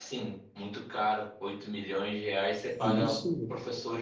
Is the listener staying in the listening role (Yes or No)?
Yes